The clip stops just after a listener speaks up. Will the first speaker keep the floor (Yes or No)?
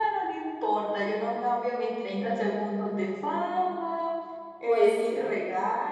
Yes